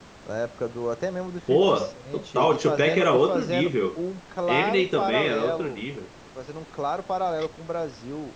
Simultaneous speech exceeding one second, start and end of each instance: 1.5-4.0, 4.5-5.8

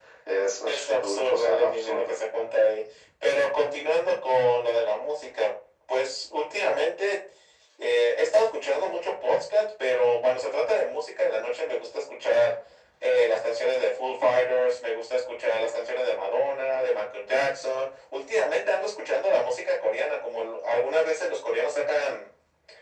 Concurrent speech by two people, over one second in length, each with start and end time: 0.7-2.2

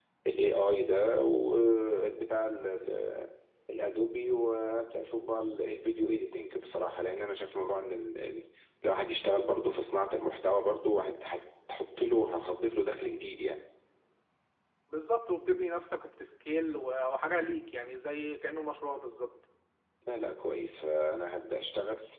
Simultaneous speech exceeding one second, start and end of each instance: none

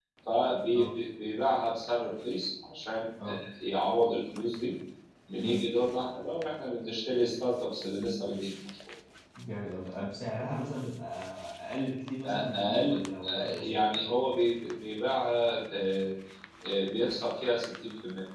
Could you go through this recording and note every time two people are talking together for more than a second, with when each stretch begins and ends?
12.3-13.8

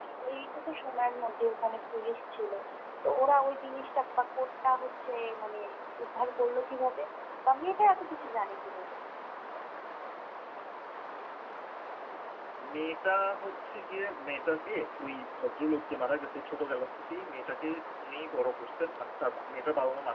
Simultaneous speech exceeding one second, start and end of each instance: none

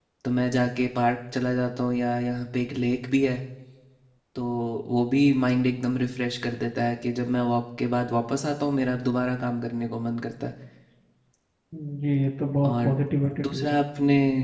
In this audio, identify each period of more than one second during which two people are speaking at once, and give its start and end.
none

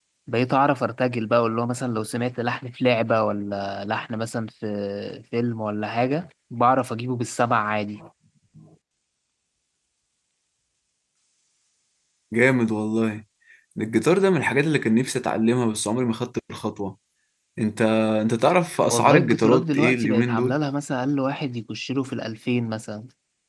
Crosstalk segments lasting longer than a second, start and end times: 18.9-20.6

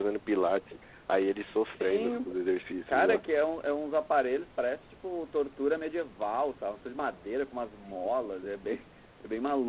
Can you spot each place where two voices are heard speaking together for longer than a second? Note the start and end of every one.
none

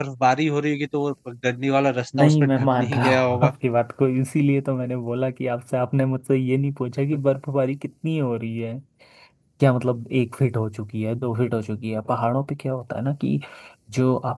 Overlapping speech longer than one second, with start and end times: 2.2-3.5

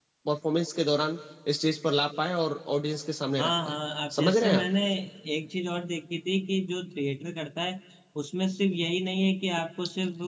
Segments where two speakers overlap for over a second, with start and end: none

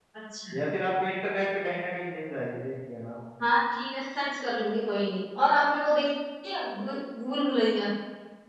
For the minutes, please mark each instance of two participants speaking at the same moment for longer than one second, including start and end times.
none

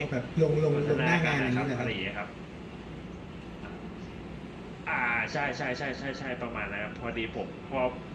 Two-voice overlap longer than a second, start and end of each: 0.7-1.9

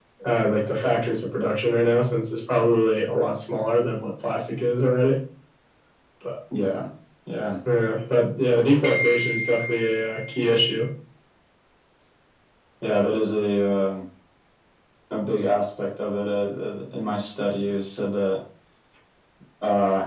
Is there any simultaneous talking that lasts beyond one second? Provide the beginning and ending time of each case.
none

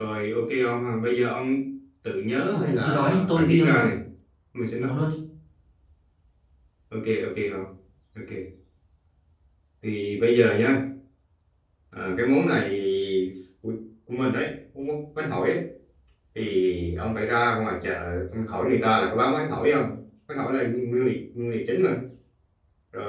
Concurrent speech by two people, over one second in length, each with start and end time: 2.5-3.9

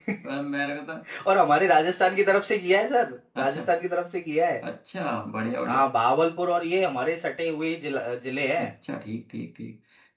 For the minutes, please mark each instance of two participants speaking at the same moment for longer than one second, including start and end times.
none

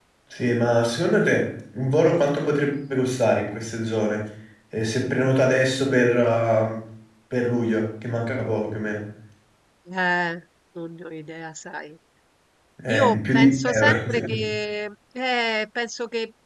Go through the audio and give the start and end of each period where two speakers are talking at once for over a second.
12.9-14.2

